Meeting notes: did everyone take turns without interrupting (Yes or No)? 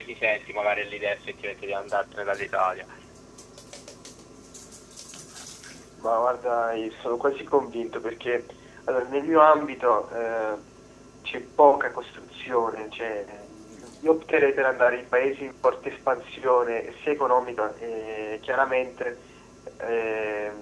Yes